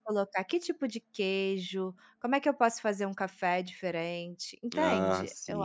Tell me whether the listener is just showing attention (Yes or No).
Yes